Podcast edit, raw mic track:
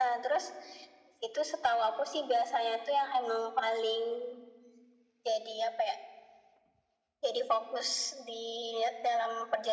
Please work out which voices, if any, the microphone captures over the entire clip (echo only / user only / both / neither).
echo only